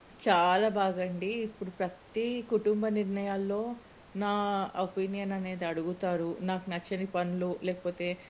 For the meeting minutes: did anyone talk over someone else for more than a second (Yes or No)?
No